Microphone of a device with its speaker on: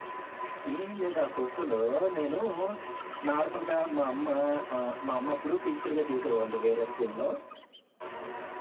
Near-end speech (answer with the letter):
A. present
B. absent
B